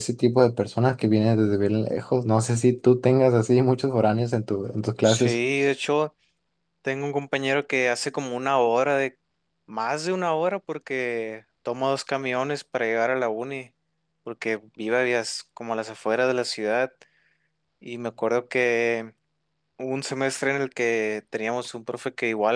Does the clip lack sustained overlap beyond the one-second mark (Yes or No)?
Yes